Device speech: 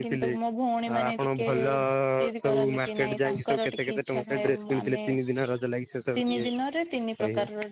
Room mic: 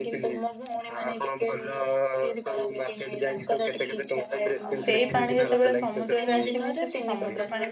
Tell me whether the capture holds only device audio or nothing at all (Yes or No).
No